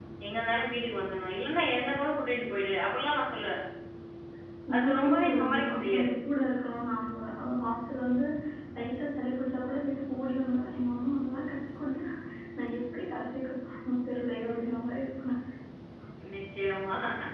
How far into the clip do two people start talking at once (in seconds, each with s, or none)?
4.8 s